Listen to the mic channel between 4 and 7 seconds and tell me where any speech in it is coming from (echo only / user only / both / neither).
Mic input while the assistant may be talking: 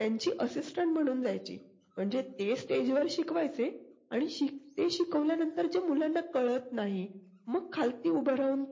echo only